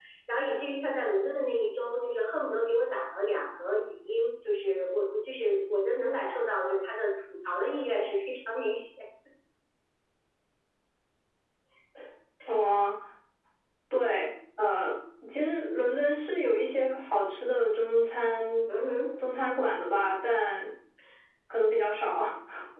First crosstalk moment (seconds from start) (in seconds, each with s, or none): none